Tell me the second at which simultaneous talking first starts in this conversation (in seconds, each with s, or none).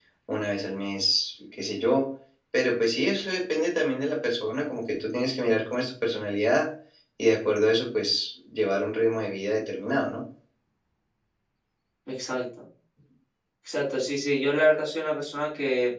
none